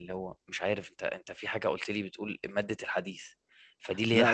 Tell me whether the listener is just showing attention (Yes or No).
Yes